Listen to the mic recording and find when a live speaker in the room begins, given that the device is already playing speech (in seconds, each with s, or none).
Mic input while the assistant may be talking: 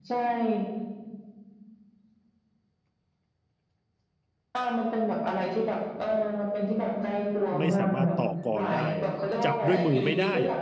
7.6 s